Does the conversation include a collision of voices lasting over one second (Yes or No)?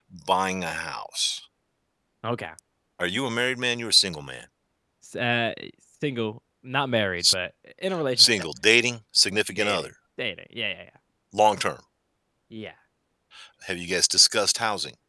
No